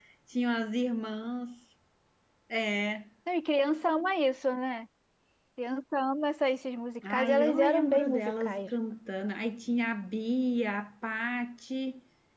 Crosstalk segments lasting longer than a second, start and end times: 7.1-8.7

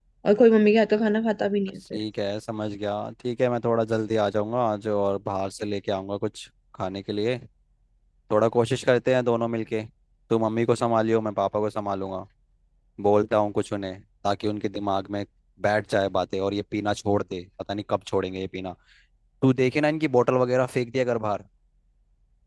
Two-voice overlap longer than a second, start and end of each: none

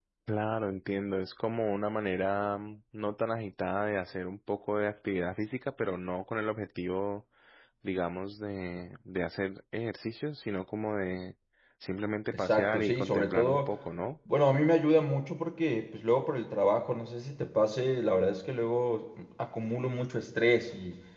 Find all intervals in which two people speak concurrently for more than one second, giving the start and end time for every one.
12.3-13.7

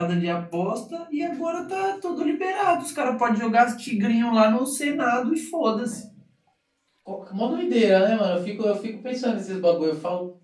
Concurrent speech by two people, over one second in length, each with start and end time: none

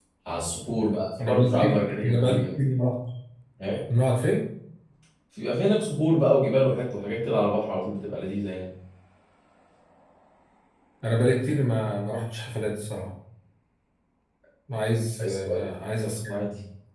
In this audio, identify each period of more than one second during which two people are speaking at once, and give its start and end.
1.2-2.4

